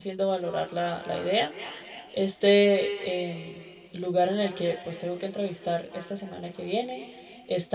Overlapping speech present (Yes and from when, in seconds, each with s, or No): No